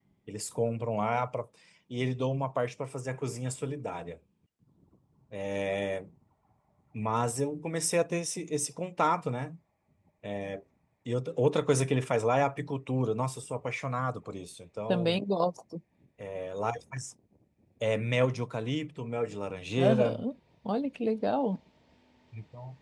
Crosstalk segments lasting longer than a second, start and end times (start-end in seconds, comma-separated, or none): none